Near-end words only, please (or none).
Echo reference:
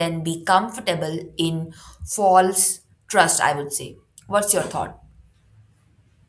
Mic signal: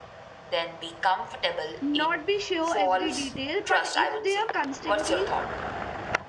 not be sure every detail, but if they are constantly